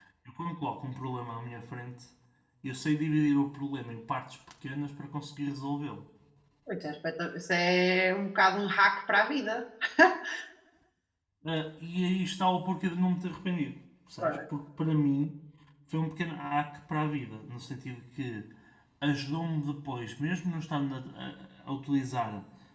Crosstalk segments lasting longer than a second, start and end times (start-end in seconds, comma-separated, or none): none